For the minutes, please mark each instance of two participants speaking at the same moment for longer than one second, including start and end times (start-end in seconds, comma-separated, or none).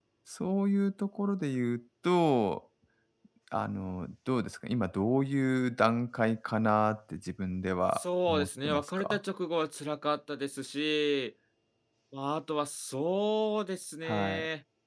7.9-9.2